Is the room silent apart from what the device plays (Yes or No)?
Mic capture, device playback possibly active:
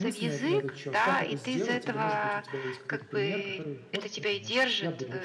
No